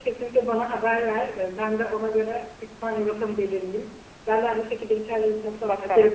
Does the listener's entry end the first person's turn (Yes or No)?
No